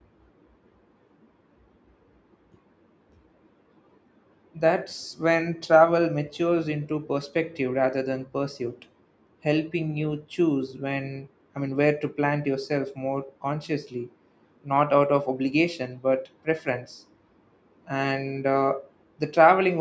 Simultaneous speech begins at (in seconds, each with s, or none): none